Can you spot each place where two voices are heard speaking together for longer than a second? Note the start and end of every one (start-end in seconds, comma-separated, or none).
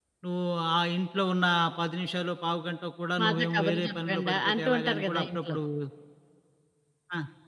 3.2-5.6